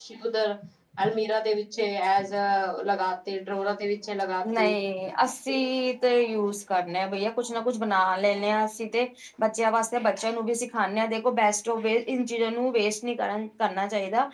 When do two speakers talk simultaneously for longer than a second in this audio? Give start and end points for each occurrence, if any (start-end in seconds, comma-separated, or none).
none